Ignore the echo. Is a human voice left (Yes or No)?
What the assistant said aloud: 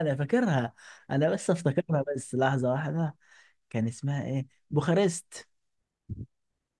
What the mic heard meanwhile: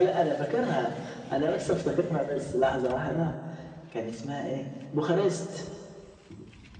No